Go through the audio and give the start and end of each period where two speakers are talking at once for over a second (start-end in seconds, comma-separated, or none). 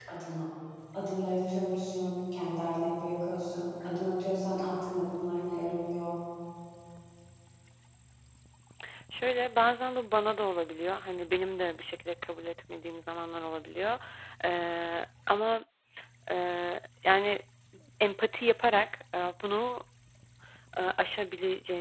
none